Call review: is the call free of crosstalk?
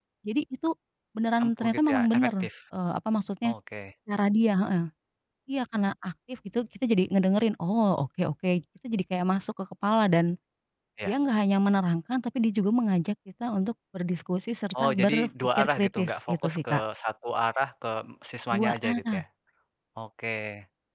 No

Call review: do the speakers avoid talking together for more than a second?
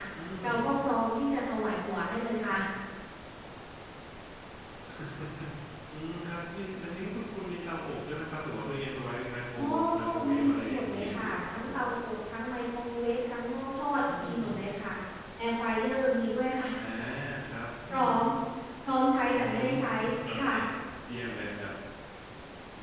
No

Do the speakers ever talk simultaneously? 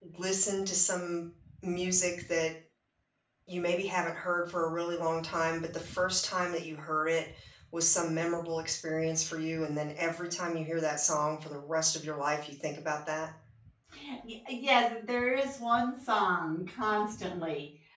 No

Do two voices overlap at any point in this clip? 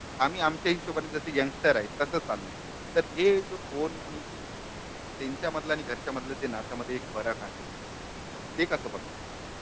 No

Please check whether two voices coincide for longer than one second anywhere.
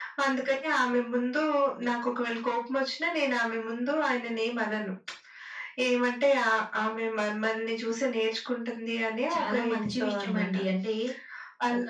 Yes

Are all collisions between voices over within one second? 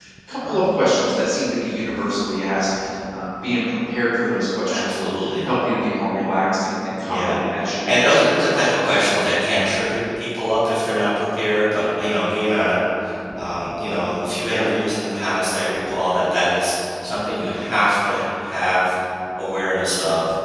No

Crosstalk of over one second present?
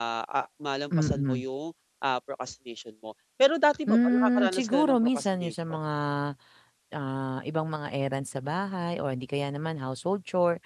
Yes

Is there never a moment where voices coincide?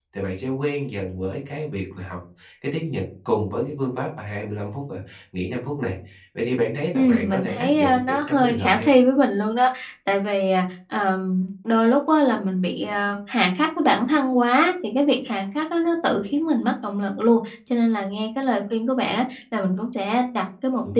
No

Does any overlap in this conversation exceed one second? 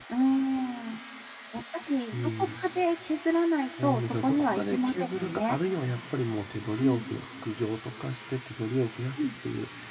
Yes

